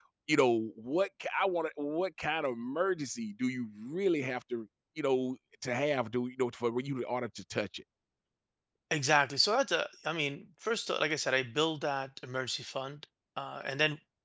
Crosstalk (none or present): none